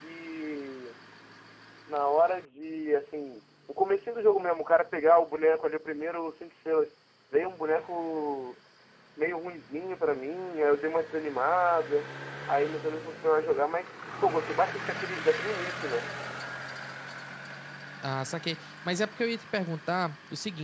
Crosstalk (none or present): none